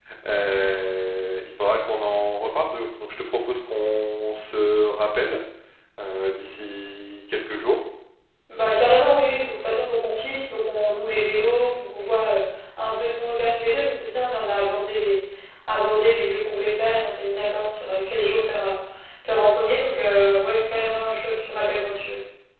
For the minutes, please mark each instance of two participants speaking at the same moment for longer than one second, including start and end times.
none

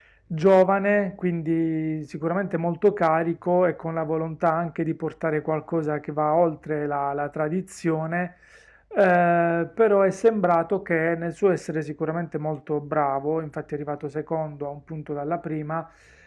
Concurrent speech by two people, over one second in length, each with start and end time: none

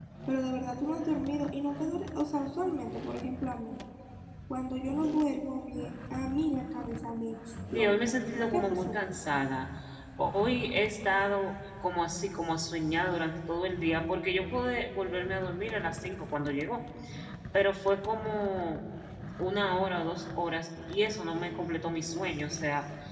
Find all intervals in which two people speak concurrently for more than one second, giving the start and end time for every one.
7.7-9.0

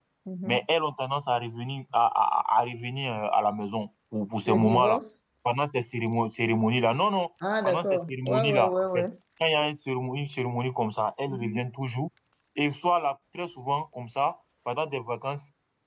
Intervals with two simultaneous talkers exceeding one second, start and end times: 7.6-9.1

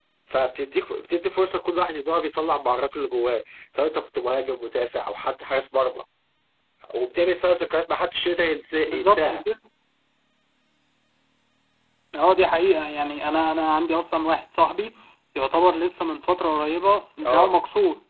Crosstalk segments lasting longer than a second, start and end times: none

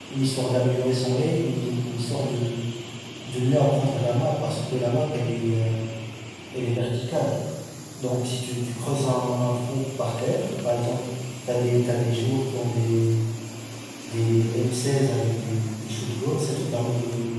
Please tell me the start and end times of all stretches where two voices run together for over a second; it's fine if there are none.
none

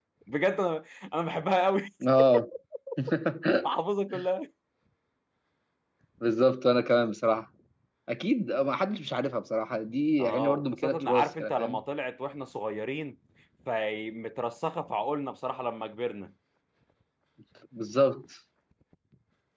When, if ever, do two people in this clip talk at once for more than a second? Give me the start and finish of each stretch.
10.2-11.8

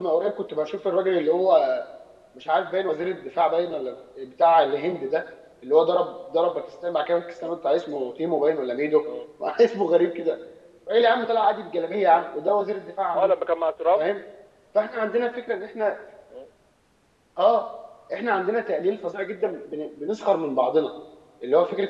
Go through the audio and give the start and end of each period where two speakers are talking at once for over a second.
none

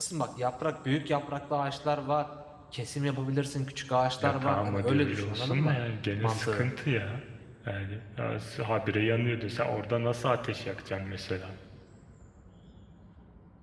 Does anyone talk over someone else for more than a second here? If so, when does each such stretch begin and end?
4.2-5.8

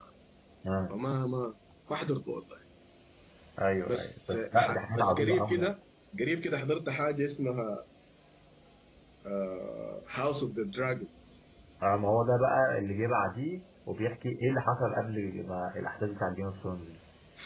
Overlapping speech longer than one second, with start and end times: 3.9-5.7

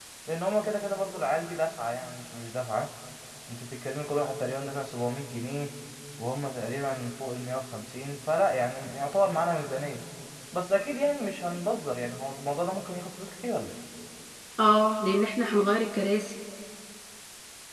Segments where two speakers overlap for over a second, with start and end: none

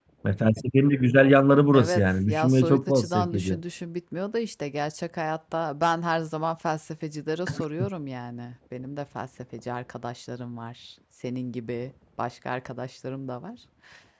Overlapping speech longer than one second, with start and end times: 1.7-3.6

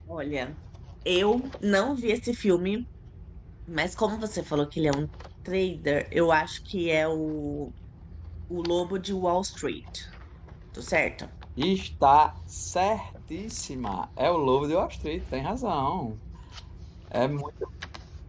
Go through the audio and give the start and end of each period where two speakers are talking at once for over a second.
none

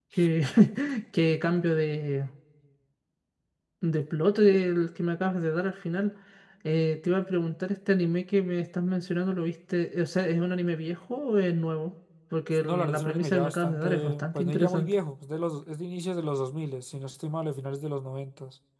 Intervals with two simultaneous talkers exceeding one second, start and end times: 12.6-14.9

